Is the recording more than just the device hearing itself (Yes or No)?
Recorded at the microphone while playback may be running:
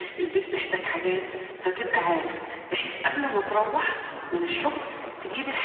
No